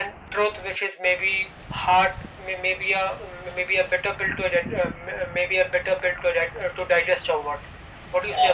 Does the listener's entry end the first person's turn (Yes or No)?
Yes